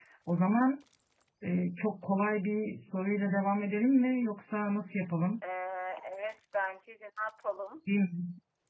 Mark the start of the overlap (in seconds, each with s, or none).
none